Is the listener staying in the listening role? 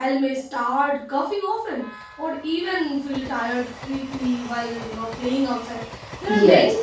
Yes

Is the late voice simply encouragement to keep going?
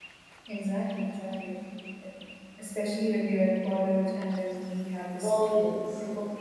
Yes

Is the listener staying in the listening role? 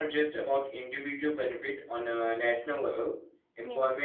Yes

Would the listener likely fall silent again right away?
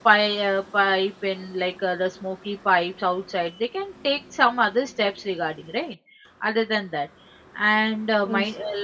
Yes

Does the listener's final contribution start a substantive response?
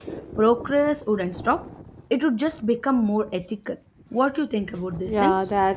Yes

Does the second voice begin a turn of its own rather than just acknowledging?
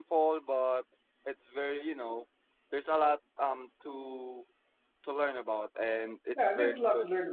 Yes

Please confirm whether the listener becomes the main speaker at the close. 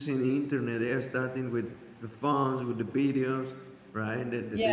No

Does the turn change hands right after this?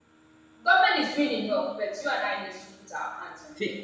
Yes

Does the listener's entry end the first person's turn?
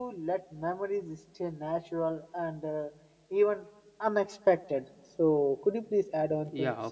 Yes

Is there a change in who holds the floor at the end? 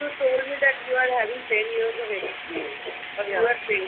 No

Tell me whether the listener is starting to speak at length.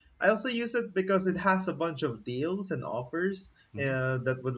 No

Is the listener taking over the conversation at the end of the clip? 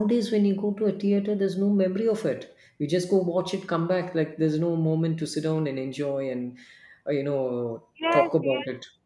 Yes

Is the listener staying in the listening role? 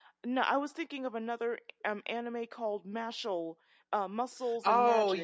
No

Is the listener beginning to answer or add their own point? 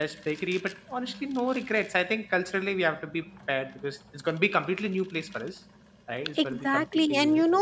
Yes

